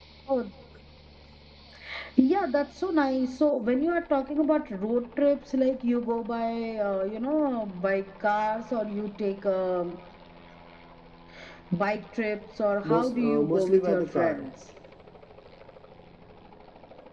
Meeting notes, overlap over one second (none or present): present